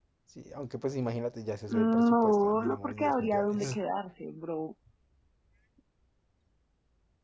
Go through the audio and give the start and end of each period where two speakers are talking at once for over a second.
1.7-3.8

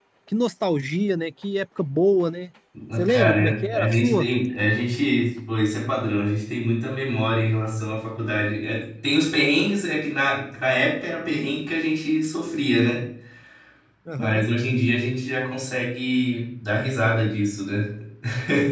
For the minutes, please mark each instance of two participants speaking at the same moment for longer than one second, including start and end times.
3.1-4.3

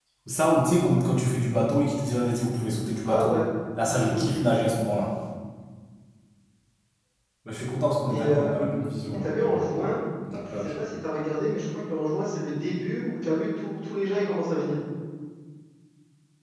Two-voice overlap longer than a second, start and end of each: 8.1-9.7

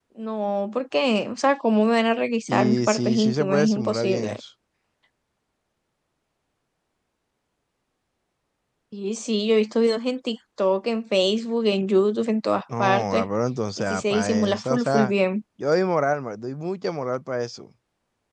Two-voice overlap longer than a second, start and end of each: 2.5-4.4, 13.8-15.1

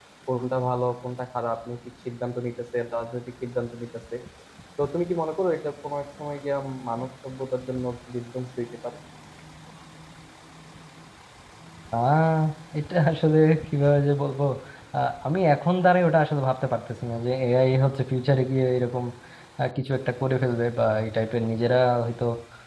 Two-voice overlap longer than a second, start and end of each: none

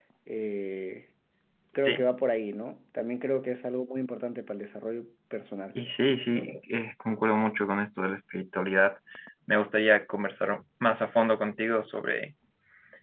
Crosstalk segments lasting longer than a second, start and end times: none

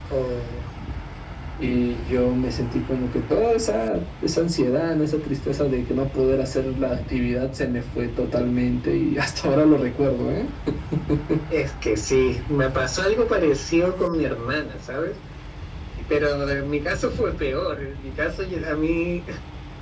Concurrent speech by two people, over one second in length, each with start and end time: none

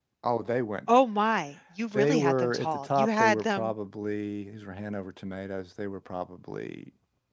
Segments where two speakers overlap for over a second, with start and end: 1.9-3.7

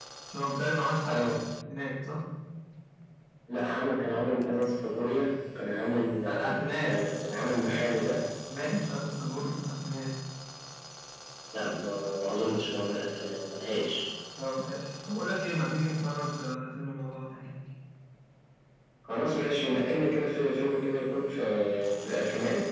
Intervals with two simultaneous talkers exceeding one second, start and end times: 6.3-7.8

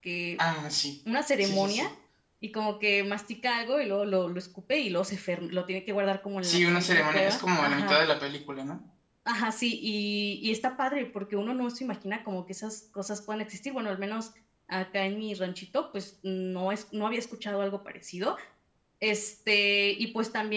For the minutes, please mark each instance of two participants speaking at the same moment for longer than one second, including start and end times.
6.4-8.0

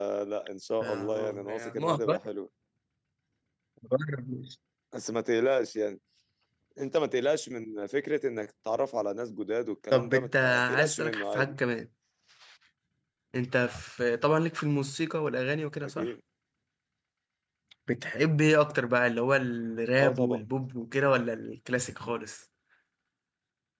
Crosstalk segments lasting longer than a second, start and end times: 0.8-2.2, 9.9-11.6

